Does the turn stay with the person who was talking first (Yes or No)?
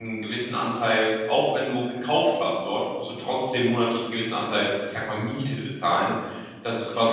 Yes